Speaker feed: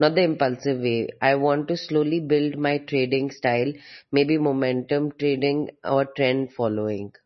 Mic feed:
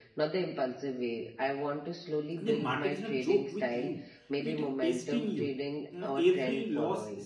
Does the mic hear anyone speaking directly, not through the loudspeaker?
Yes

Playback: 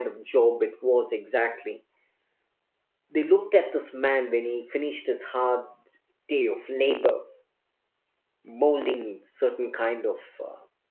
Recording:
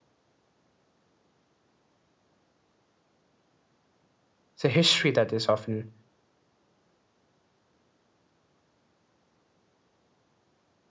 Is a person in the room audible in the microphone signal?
Yes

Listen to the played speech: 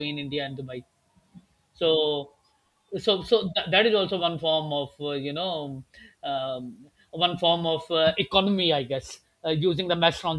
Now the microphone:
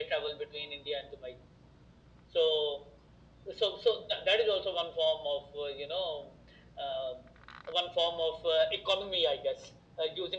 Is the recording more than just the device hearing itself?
No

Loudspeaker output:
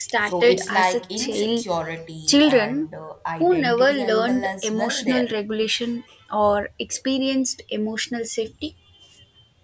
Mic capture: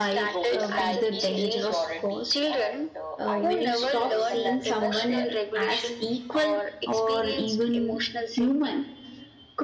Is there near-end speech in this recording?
Yes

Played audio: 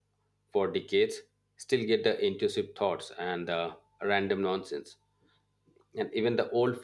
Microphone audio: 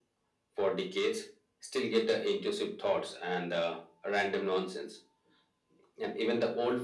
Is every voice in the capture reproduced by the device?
Yes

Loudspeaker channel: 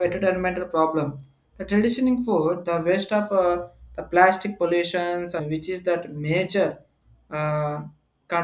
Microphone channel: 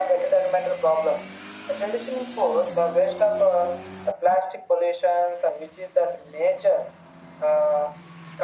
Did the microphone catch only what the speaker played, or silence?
Yes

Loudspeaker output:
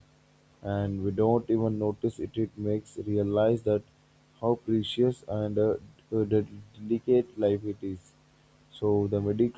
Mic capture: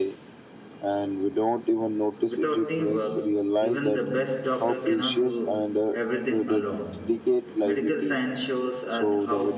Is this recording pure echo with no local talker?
No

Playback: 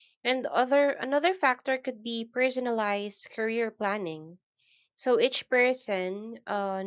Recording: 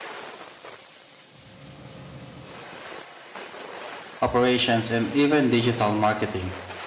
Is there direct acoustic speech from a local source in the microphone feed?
Yes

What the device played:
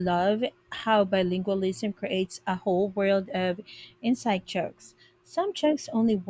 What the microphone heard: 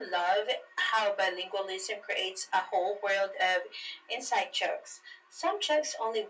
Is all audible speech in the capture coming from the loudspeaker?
Yes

